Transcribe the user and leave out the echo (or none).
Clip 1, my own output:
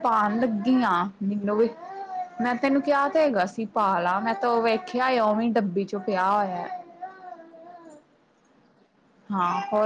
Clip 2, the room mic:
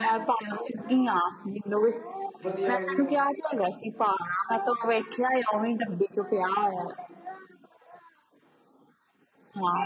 ਵਧੀਆ ਵਧੀਆ